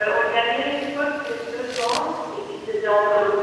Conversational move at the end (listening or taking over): listening